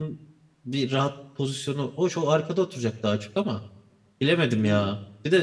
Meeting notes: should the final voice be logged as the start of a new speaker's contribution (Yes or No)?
No